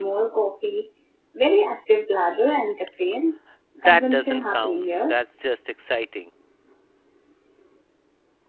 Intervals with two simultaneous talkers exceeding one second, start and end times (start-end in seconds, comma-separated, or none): 3.8-5.1